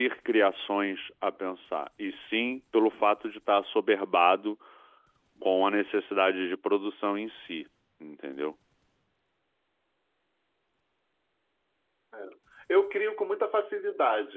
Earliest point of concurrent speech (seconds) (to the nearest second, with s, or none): none